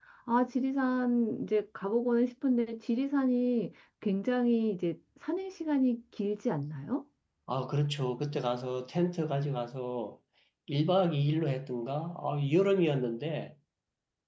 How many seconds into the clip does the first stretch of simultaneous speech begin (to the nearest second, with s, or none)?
none